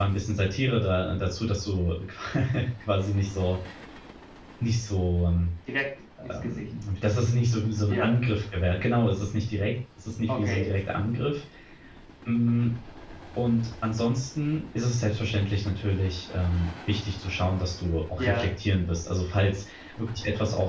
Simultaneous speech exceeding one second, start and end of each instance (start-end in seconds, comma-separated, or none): none